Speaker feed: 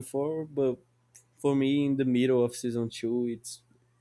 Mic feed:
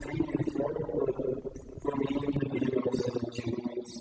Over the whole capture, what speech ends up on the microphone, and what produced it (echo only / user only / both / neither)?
echo only